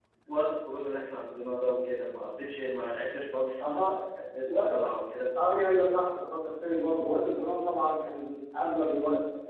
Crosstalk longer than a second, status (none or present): none